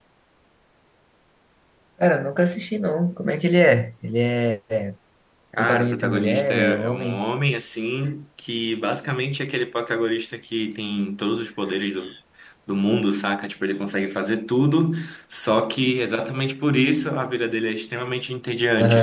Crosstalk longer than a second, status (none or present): present